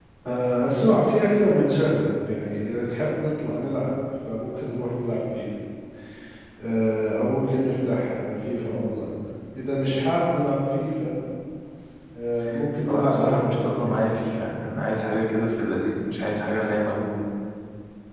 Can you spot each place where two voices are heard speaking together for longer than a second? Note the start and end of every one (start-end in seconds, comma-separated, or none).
12.8-14.8